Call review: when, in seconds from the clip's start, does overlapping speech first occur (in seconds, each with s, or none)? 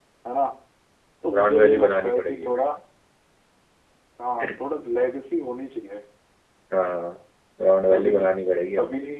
1.3 s